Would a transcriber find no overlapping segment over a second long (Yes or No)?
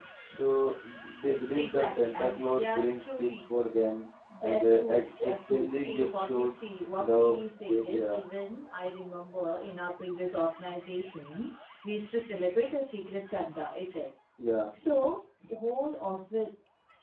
No